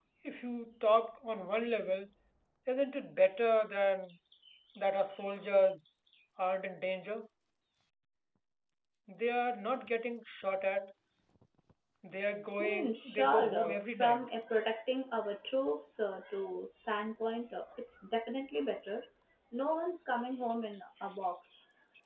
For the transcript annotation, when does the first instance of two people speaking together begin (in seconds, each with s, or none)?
12.6 s